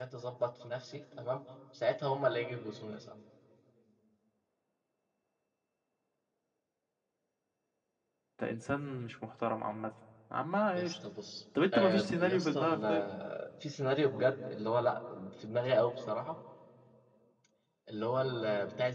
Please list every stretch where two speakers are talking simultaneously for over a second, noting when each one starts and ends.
11.7-13.1

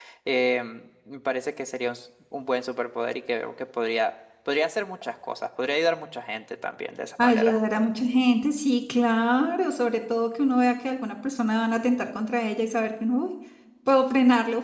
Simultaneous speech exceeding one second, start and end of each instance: none

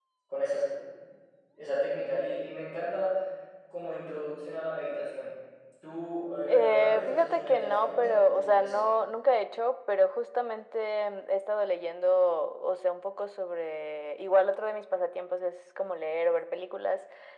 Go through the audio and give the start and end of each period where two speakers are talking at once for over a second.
6.5-8.9

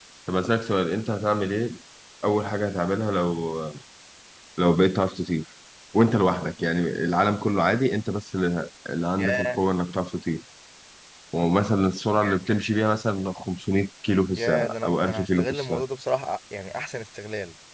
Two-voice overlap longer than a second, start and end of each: 14.4-15.8

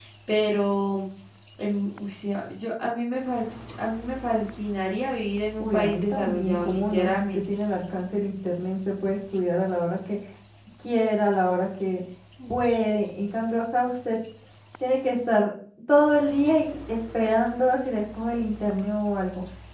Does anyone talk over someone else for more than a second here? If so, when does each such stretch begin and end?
5.6-7.4

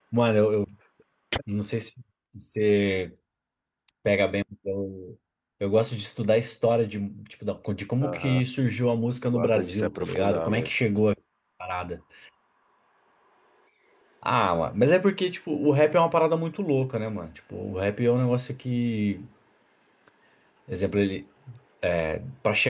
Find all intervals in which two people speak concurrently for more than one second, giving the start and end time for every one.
9.2-10.7

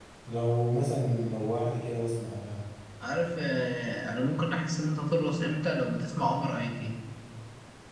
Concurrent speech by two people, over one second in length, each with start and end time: none

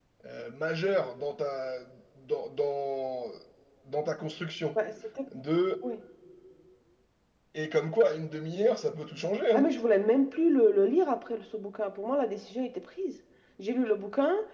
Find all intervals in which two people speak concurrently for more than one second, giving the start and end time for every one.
none

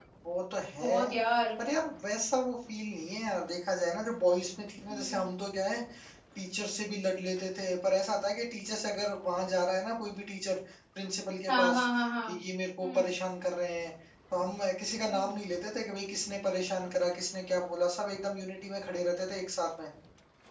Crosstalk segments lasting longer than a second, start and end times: none

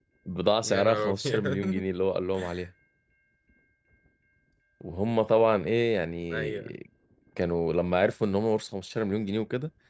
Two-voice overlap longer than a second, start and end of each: 0.6-1.8

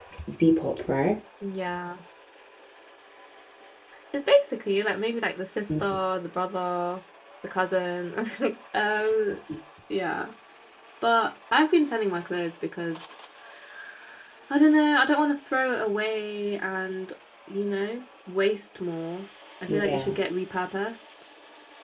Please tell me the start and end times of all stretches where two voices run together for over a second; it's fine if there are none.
none

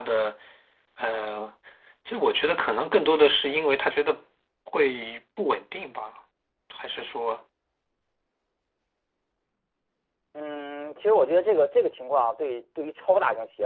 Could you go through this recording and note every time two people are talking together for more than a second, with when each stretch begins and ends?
none

